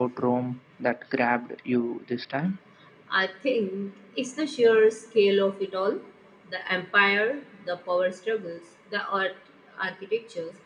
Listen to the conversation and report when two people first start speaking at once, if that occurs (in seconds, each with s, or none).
none